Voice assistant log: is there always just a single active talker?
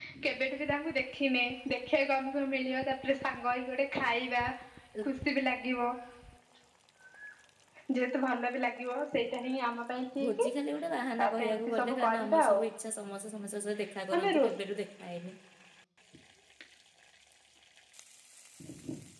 No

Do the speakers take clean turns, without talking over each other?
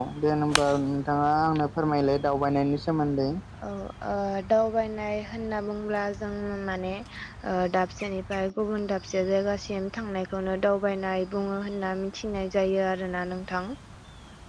Yes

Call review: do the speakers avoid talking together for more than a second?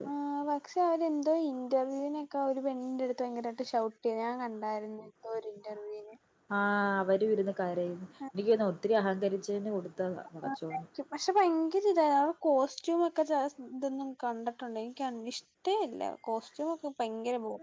Yes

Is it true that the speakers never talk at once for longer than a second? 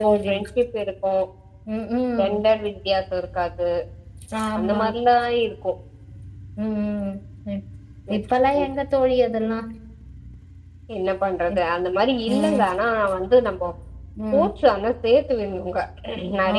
Yes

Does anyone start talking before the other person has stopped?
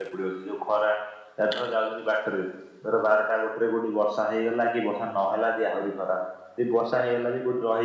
No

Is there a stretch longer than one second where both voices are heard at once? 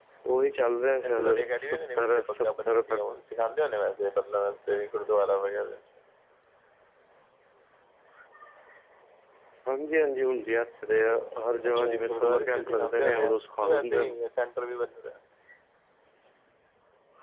Yes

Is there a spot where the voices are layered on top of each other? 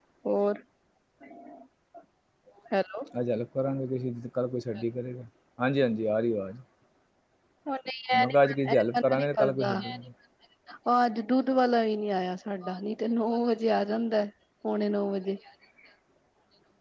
Yes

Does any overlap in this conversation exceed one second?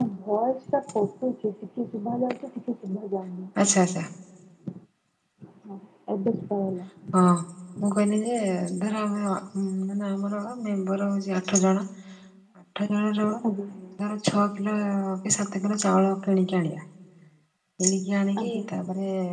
No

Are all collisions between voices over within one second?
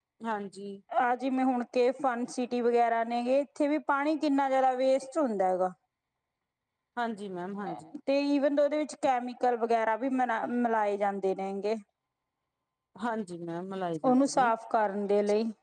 Yes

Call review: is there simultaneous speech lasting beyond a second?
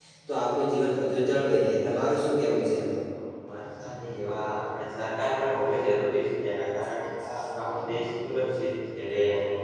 No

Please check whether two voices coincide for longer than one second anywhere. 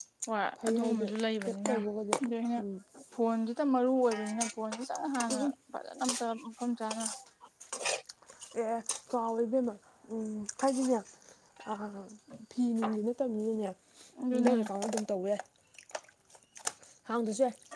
No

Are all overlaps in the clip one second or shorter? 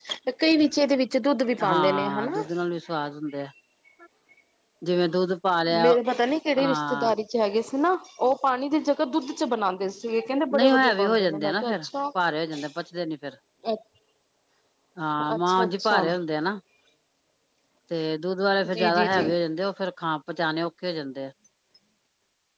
No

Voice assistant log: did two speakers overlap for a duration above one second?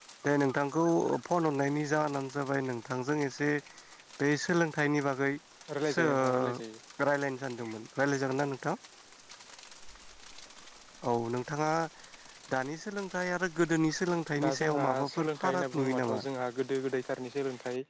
Yes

